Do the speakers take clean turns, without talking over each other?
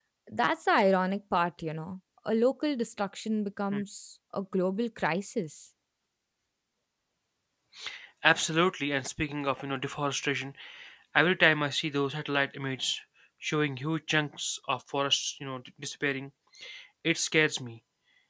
Yes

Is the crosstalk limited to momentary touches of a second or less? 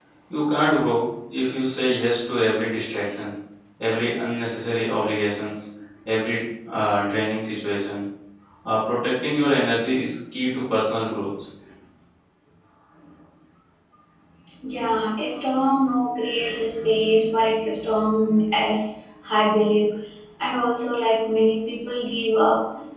Yes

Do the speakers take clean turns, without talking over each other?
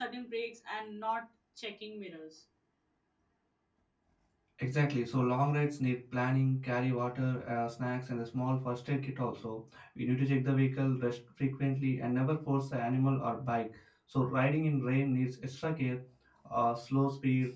Yes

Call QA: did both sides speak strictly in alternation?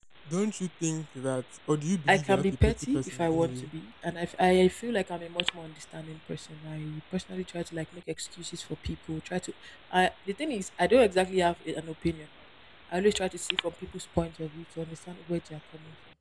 No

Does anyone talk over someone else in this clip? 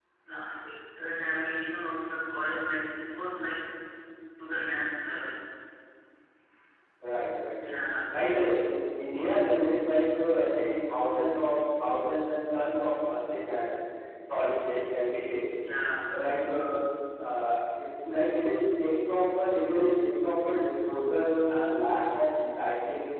No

